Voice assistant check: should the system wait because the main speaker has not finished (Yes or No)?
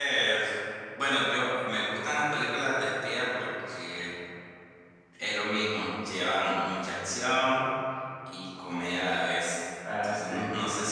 Yes